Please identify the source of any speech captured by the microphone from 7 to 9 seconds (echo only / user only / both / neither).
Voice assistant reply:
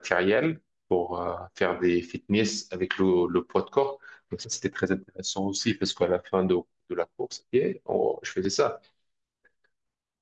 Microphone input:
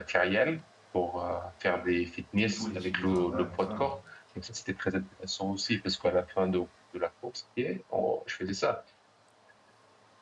echo only